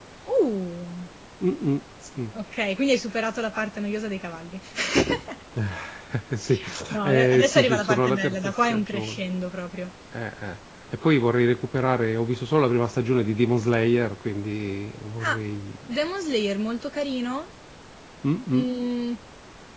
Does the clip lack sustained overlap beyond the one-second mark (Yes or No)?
No